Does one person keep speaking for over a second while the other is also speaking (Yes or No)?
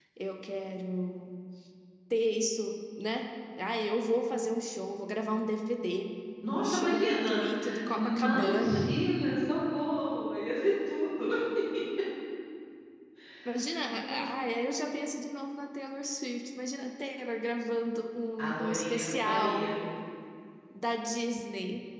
Yes